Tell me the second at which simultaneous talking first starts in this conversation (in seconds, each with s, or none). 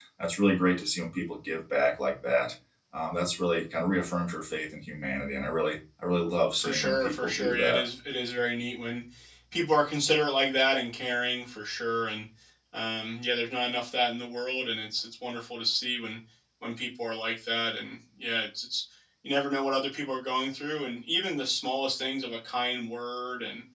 6.6 s